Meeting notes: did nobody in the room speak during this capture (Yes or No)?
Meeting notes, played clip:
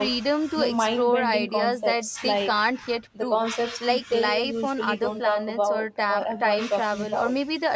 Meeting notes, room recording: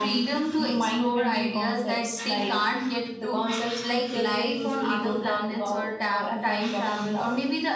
Yes